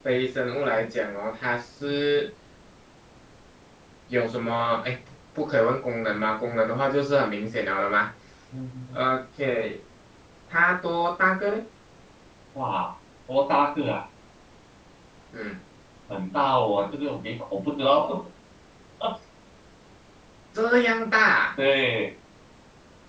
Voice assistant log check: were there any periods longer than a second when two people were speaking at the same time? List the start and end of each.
none

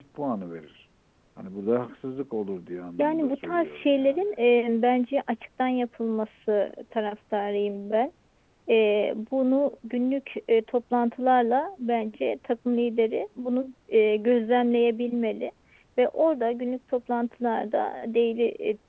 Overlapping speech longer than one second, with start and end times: 3.0-4.3

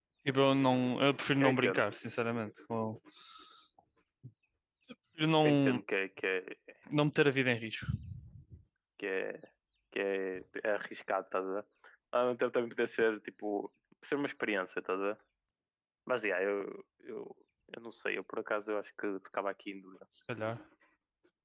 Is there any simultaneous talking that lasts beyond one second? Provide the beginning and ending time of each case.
none

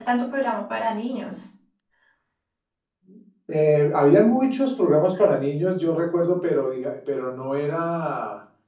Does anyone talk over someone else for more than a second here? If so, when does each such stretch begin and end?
none

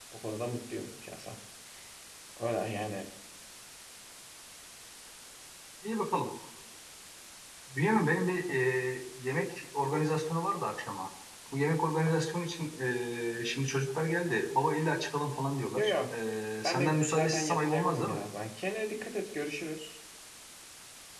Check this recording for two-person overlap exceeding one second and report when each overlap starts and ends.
16.6-18.2

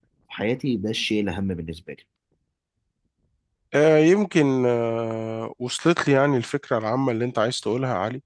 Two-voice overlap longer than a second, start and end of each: none

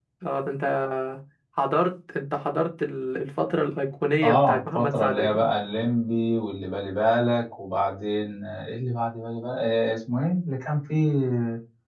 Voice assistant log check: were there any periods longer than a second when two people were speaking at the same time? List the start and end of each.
4.2-5.4

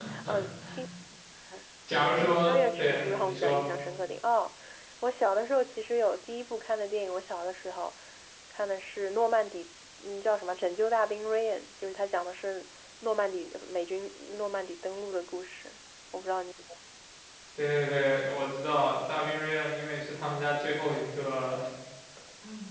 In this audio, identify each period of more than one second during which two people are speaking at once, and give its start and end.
2.2-3.6

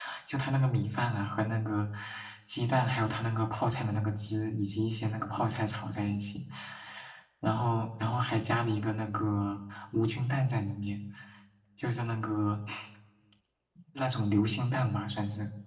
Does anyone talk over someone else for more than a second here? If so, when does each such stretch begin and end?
none

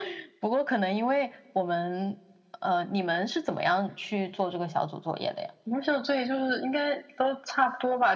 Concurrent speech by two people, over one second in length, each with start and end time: none

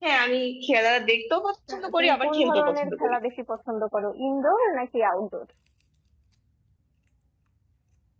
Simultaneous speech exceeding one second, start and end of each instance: 1.7-3.2

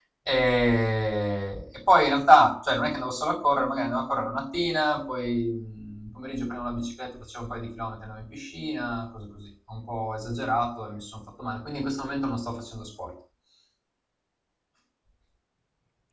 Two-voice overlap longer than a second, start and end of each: none

